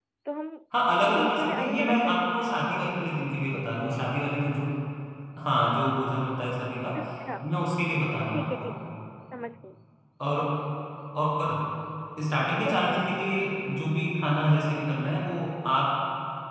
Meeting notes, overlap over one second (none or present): present